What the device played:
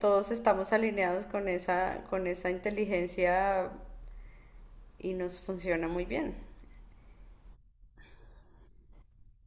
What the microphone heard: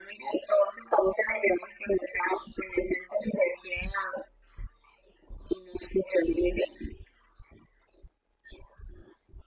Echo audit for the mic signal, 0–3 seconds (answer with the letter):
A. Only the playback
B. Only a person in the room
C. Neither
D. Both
A